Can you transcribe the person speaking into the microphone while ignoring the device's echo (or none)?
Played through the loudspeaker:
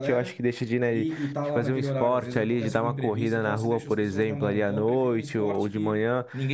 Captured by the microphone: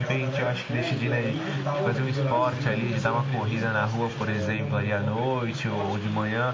É, então, eu nado, corro. Eu fiz remo durante muito tempo, ah,